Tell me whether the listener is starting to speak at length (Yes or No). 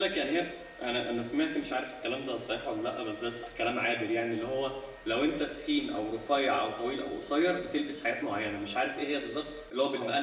No